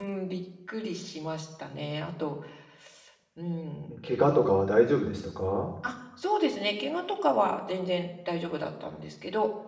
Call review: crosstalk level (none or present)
none